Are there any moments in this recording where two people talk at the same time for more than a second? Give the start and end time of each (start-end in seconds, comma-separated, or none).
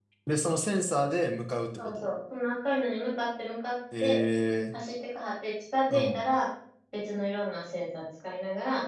none